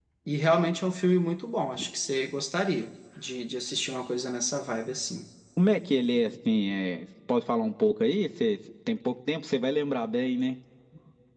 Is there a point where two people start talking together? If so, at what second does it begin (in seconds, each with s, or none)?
none